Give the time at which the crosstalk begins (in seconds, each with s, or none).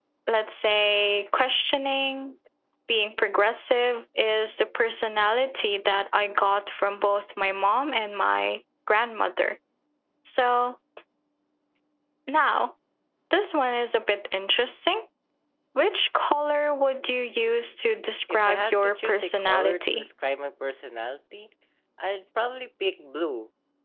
18.3 s